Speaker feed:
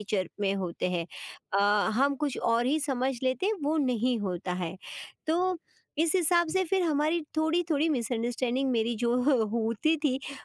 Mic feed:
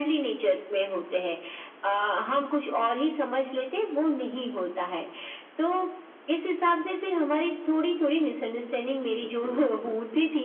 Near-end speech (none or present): present